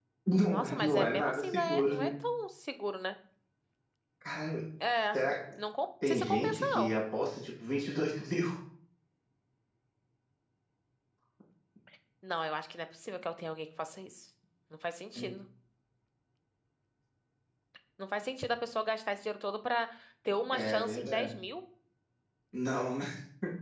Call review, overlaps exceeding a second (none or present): present